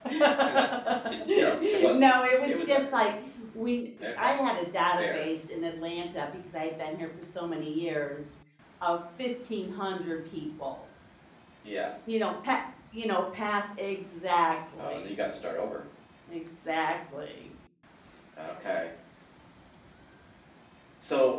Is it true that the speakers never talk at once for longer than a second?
No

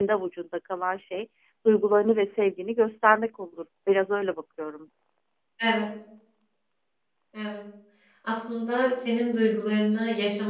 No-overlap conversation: Yes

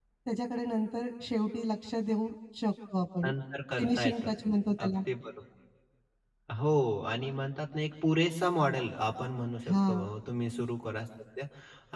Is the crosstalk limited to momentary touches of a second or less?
Yes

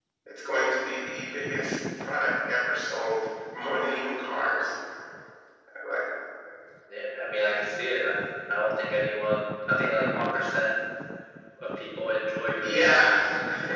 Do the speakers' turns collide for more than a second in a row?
No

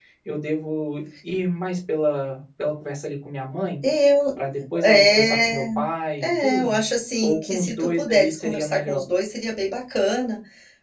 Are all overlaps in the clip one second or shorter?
No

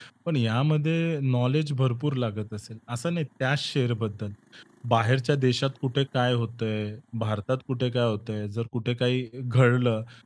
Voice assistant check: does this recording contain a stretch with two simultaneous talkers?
No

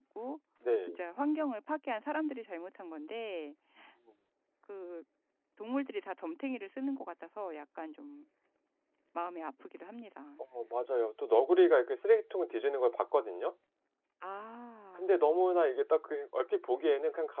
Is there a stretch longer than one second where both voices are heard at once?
No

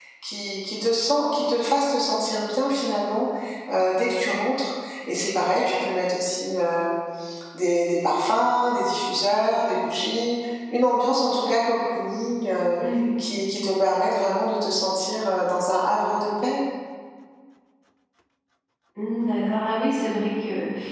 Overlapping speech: No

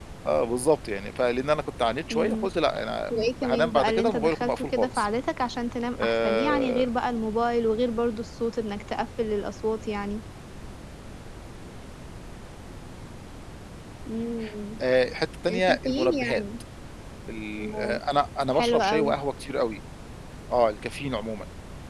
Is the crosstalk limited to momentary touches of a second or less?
No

